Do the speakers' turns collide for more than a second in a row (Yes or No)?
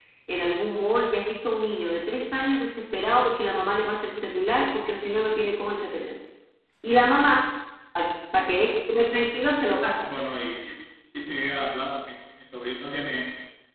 No